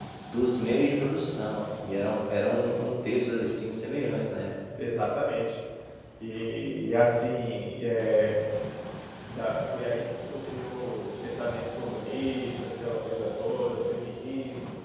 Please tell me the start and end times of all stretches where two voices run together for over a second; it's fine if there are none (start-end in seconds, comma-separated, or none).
none